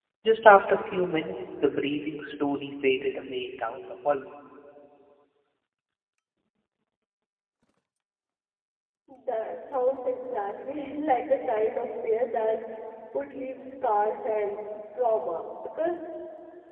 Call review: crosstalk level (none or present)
none